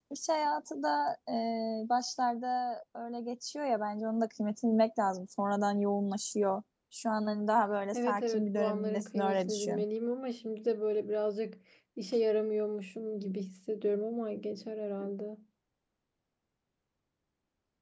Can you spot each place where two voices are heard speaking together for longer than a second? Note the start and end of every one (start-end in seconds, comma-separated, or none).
7.9-9.8